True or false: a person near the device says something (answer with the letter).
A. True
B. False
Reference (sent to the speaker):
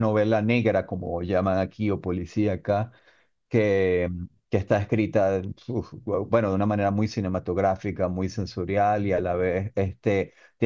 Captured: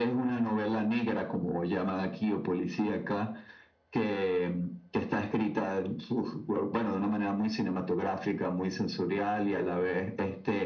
B